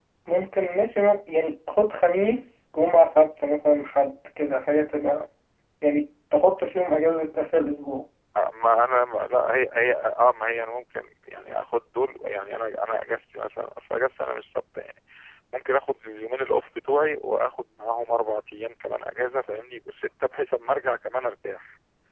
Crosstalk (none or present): none